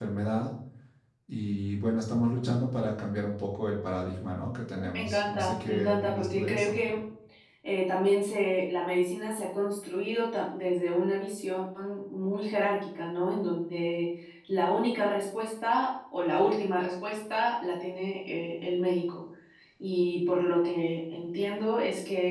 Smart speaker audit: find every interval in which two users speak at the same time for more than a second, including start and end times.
4.9-6.8

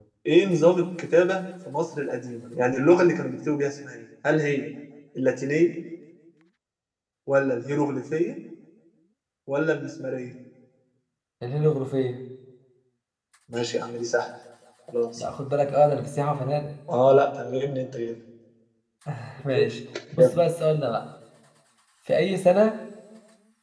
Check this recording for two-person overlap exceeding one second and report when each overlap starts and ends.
none

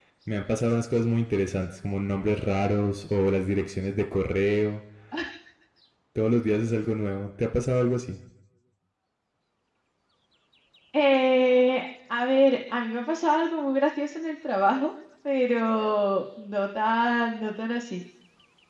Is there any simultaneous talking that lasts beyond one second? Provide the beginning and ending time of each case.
none

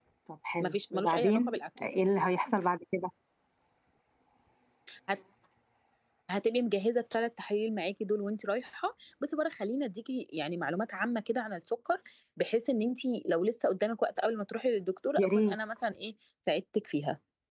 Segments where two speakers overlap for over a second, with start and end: 0.6-1.9

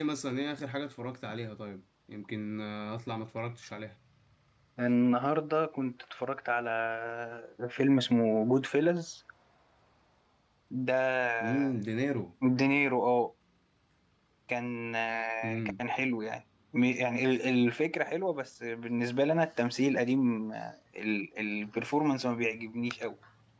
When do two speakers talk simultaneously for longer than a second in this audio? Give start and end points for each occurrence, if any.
none

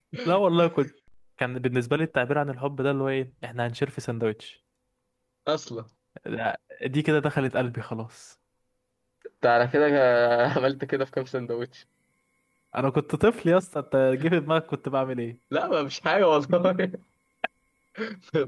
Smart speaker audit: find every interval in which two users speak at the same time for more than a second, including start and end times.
none

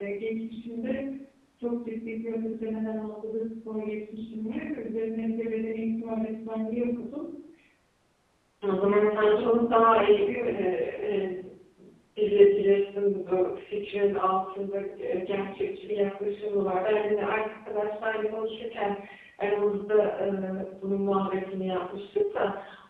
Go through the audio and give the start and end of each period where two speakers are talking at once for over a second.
8.8-10.7

